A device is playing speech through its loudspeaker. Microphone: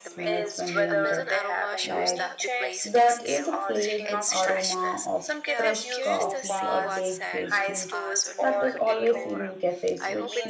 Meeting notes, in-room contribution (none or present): present